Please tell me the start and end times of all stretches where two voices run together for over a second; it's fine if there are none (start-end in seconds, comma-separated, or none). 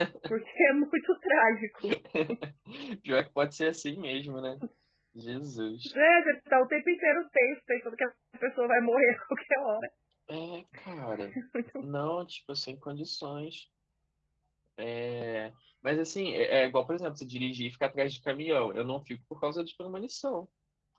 none